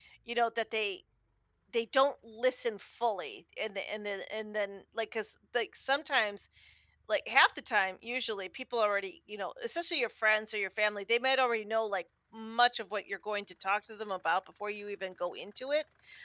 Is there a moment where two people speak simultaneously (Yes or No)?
No